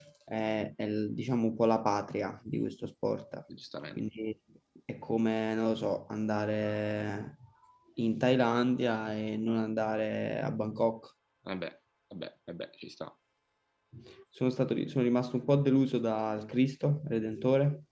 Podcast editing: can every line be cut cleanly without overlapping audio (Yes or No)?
Yes